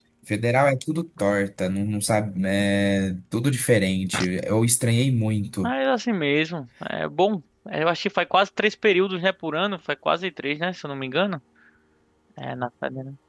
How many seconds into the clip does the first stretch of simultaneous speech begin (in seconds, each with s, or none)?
none